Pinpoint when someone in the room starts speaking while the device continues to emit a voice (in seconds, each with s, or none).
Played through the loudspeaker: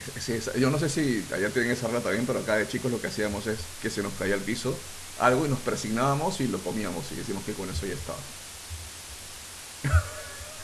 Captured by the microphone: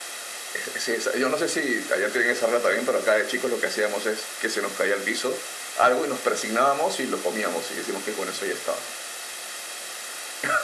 none